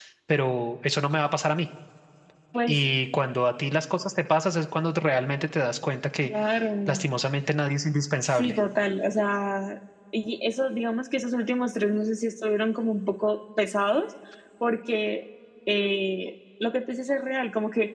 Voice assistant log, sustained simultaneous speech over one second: none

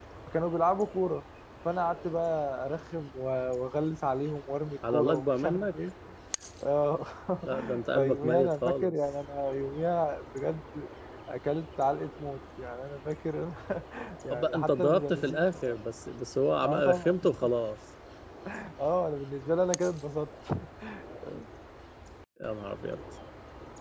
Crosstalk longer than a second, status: present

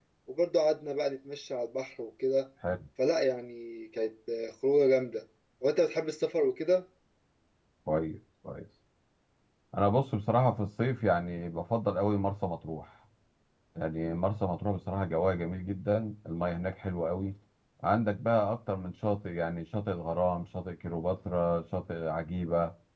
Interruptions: none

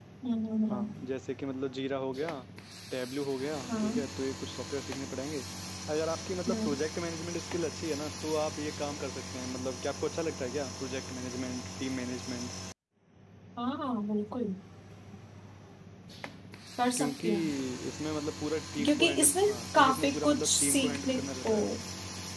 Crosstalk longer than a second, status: present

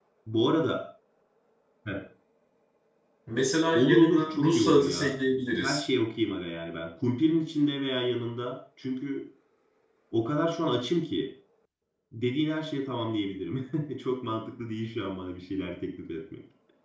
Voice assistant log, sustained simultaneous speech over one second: present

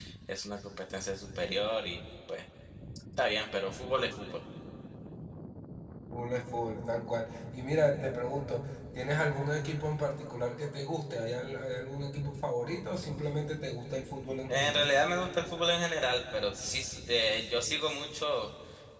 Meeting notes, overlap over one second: none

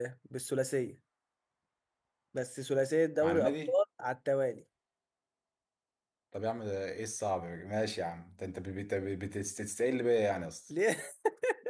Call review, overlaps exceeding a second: none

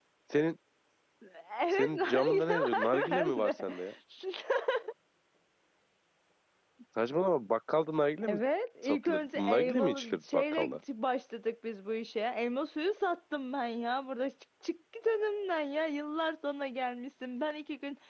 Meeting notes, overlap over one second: present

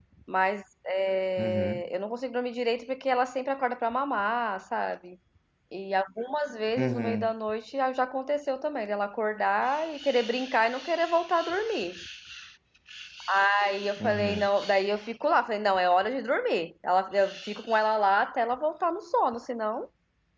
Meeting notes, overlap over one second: none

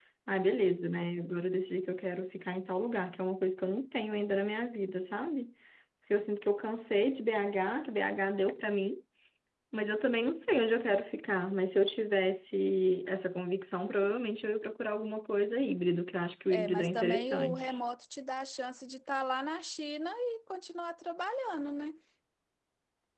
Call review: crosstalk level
present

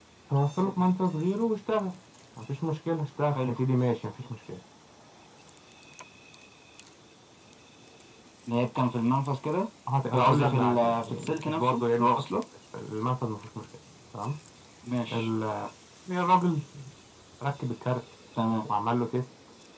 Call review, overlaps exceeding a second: present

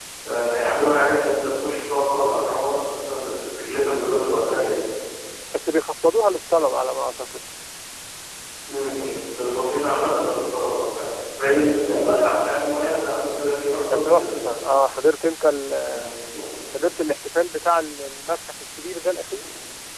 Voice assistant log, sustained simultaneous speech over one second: none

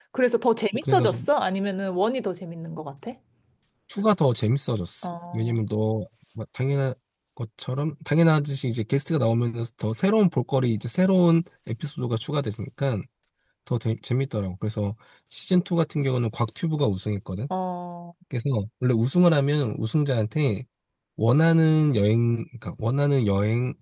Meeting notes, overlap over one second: none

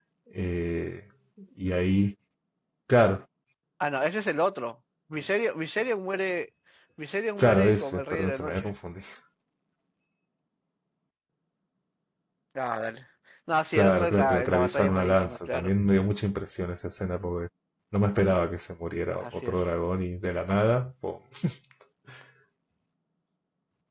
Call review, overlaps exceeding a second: present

